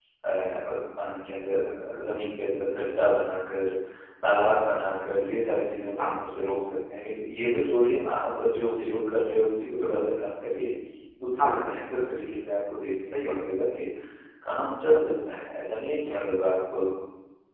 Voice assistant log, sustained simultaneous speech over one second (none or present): none